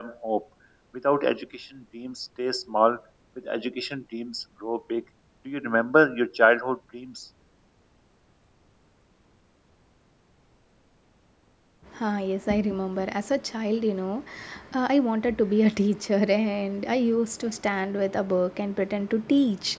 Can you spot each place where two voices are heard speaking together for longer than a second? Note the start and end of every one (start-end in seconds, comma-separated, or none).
none